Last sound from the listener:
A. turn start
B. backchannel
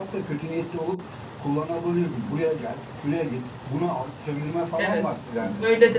A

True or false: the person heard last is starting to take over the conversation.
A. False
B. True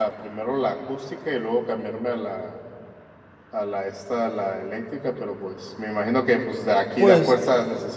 A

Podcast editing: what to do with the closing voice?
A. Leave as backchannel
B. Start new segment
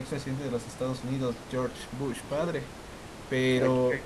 A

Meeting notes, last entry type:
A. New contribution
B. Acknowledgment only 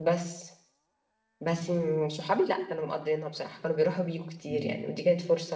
B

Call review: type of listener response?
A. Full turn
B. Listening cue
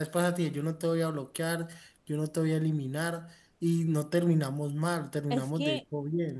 A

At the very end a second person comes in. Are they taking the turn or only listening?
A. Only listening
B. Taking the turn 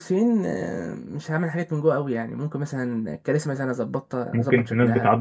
B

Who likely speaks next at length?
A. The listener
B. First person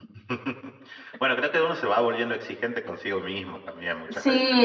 A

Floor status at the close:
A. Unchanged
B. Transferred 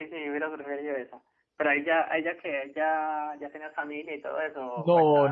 B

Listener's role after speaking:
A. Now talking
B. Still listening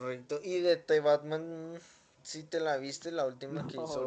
A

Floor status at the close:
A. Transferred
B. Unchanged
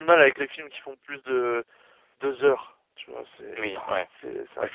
A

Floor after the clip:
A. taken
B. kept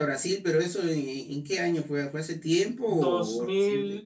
A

